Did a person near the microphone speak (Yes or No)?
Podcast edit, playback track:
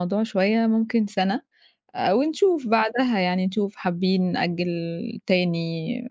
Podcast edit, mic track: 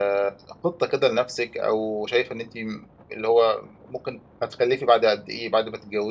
Yes